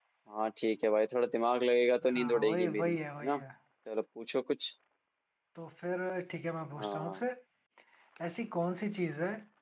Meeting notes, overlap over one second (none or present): present